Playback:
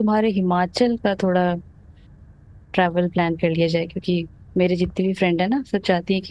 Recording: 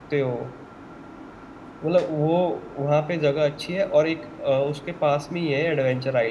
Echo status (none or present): none